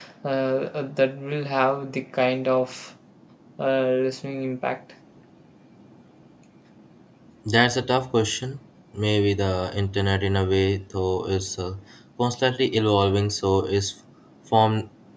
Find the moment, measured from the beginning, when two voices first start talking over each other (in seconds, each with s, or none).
none